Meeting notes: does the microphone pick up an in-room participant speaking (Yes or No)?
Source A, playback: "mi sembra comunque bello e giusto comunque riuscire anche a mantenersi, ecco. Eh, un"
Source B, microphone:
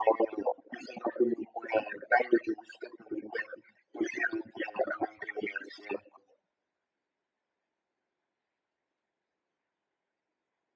No